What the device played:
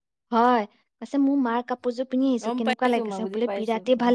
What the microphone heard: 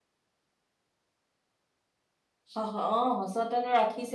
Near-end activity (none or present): present